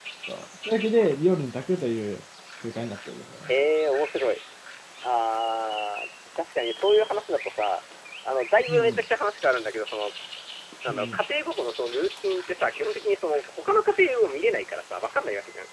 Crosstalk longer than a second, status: none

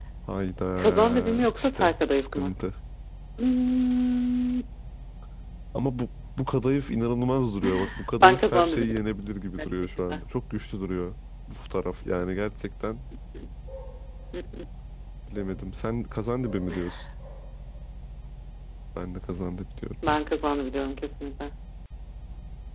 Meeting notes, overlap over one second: present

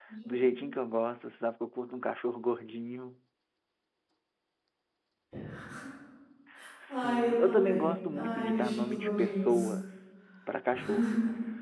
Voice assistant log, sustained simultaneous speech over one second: present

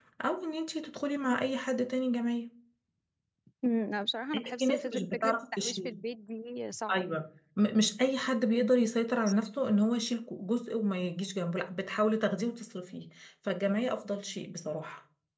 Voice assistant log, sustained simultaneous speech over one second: present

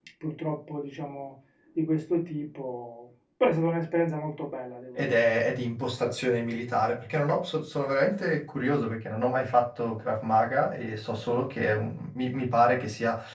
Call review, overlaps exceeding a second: none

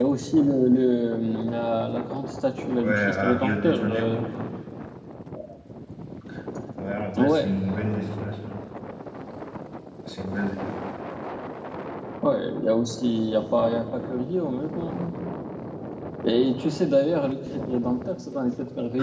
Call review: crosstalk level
present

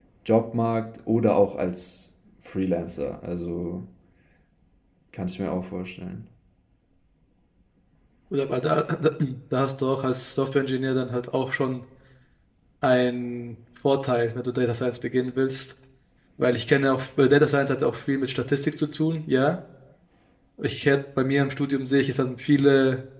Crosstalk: none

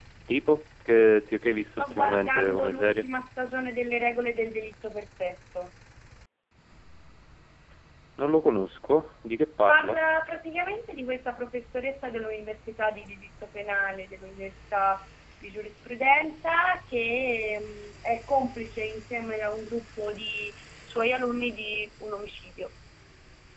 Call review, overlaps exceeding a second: present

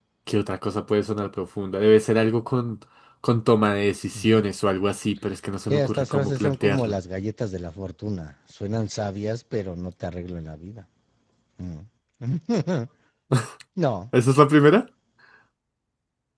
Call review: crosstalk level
present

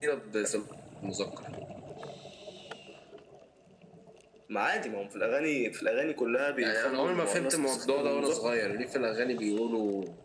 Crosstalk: present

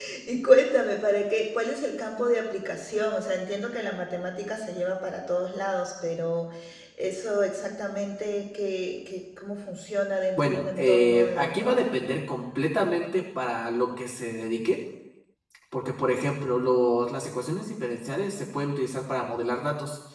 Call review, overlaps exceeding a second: present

